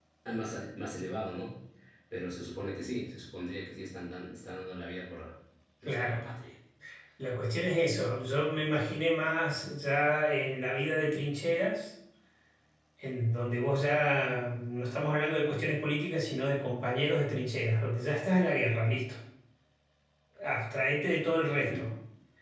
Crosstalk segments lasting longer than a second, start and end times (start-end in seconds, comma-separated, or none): none